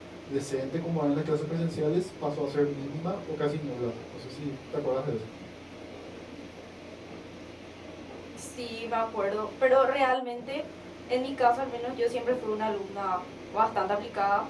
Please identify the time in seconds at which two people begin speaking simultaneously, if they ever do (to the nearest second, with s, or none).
none